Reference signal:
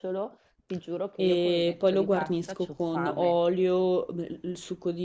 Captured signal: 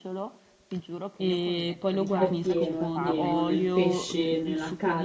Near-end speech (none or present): present